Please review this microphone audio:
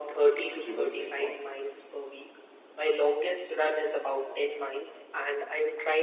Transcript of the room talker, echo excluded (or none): at Riverside Park.